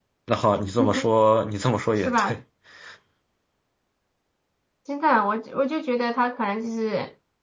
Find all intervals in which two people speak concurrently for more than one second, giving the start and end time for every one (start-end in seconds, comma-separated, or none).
none